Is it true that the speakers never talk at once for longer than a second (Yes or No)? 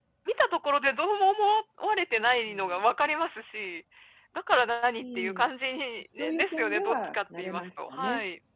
No